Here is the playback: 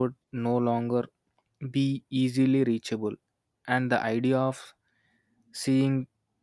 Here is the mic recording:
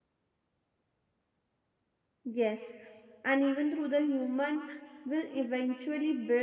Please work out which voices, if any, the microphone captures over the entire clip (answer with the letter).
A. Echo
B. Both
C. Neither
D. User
D